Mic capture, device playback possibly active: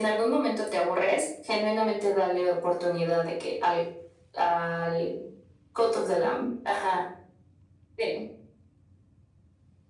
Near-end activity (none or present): none